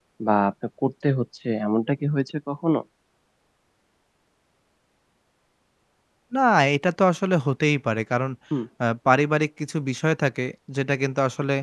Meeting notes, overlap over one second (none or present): none